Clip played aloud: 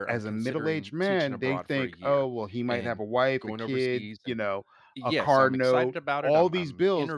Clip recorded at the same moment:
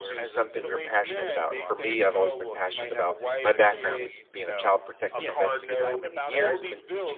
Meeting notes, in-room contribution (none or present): present